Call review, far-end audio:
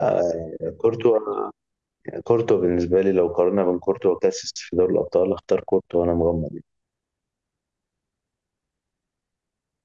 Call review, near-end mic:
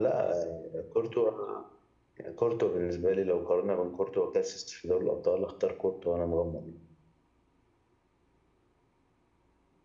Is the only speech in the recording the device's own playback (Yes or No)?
Yes